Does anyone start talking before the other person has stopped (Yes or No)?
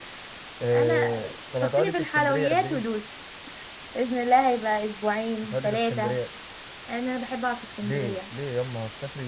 Yes